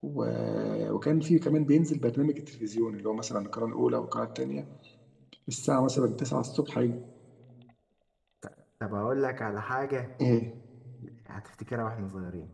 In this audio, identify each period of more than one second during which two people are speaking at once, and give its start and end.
none

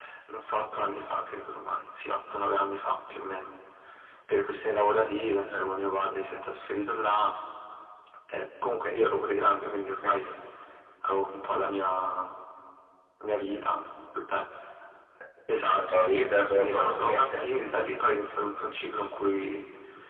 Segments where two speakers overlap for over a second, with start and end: 15.8-17.6

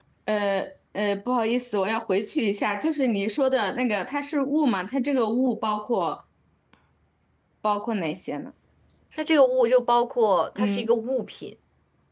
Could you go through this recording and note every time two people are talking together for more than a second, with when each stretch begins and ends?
none

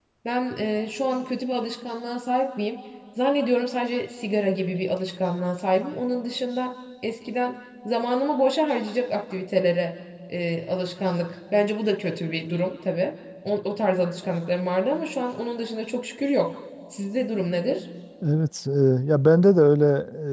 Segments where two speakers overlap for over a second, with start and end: none

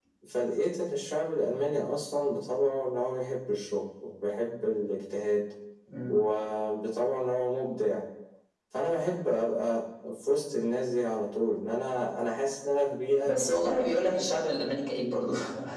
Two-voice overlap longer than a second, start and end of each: none

